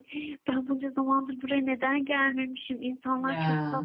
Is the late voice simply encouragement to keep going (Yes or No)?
Yes